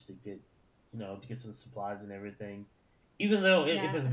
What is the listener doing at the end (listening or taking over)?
listening